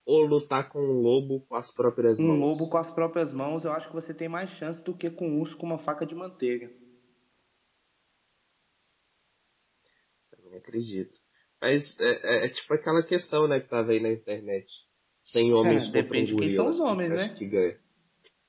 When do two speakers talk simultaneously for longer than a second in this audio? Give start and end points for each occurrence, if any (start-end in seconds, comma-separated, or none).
15.6-17.3